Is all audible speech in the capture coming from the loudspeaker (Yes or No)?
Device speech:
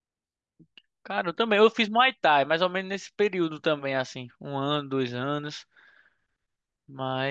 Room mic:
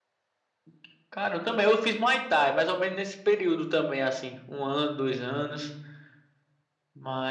Yes